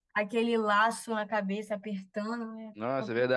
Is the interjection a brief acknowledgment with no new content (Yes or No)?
No